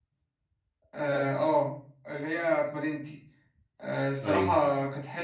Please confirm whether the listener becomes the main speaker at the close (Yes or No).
No